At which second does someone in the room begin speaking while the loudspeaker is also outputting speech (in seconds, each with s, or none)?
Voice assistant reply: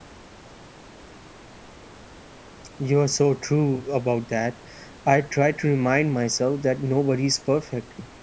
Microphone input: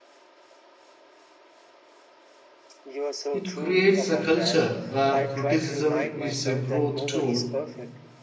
3.3 s